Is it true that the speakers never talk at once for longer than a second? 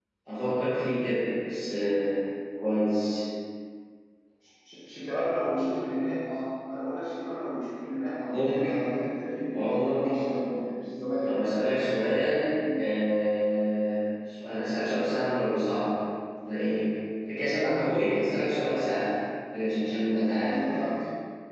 Yes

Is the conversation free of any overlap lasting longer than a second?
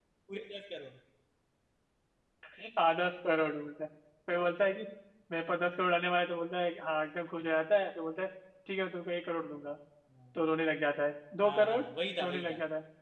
Yes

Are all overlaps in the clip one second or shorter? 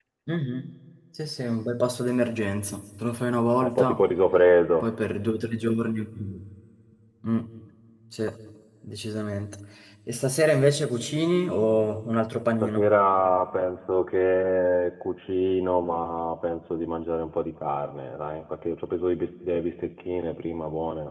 Yes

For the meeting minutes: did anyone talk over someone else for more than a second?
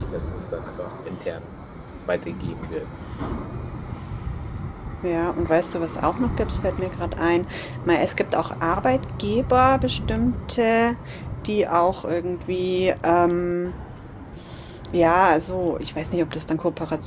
No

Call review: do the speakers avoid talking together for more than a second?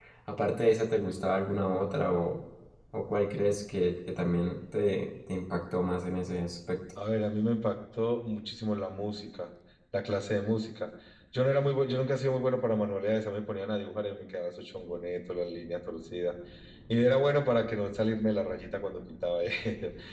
Yes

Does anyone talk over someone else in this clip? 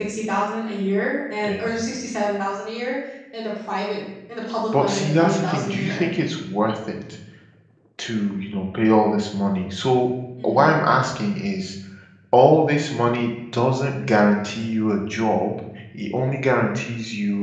Yes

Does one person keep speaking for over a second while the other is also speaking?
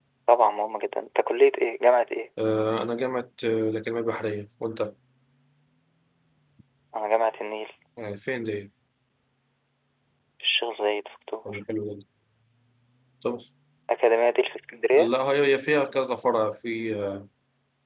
No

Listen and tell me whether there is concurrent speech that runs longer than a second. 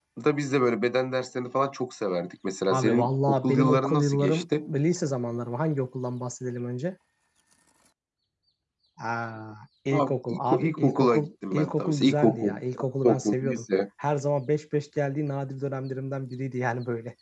Yes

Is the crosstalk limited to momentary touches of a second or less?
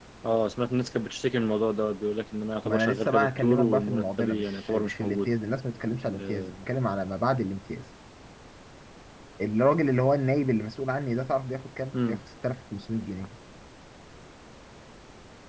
No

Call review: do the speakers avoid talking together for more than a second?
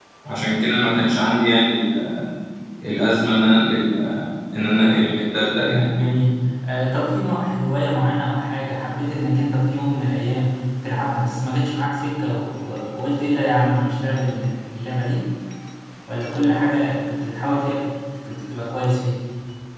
Yes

